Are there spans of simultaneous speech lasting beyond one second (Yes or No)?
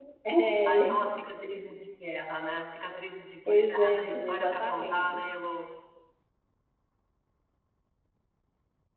Yes